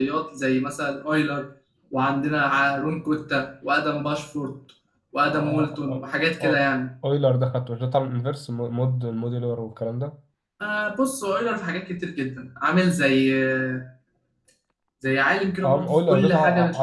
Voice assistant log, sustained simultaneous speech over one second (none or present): present